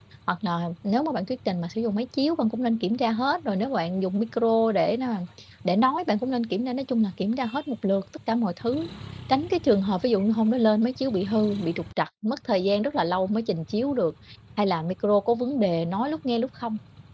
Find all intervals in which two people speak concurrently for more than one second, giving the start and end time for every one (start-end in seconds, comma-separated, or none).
none